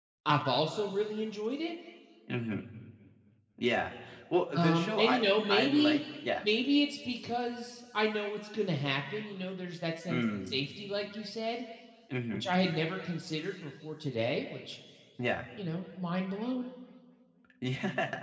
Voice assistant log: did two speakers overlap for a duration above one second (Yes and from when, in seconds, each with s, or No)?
Yes, from 4.5 s